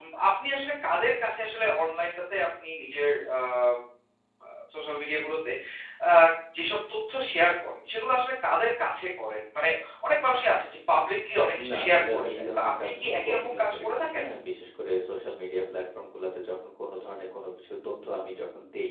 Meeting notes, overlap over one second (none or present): present